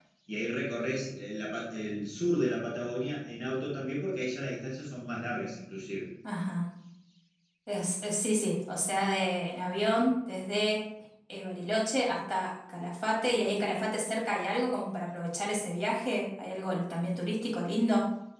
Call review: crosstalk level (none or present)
none